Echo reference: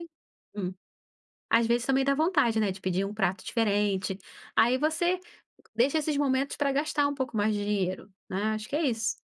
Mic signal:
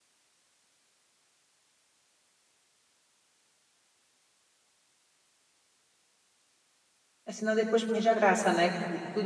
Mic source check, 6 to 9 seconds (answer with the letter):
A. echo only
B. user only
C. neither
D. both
B